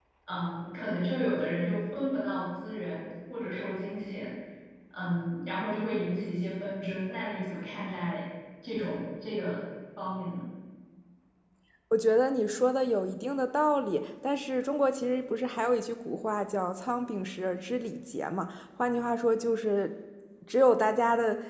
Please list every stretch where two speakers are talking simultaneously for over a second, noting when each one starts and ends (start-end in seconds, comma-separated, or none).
none